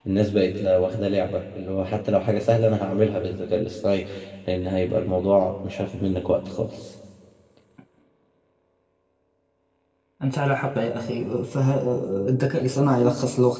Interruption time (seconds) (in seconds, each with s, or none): none